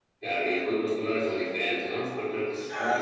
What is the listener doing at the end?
taking over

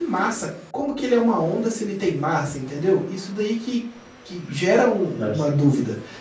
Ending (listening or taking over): listening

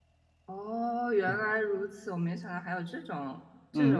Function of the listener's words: taking over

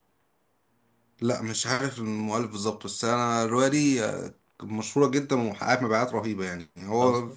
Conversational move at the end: listening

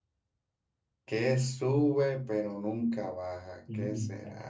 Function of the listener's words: listening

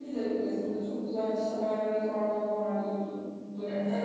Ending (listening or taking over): taking over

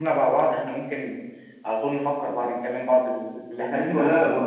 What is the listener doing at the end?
taking over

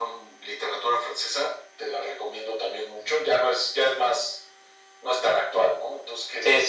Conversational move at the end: taking over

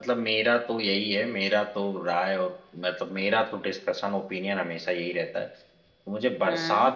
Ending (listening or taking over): listening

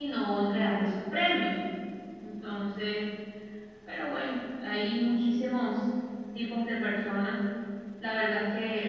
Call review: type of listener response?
listening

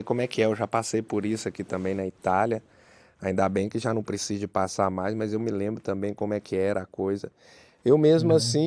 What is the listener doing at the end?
listening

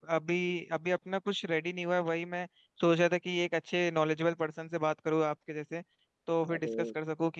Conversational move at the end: listening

